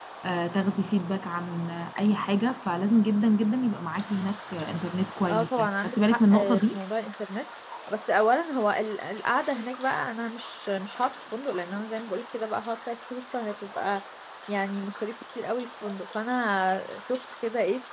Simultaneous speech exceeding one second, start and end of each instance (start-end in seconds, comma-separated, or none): 5.3-6.8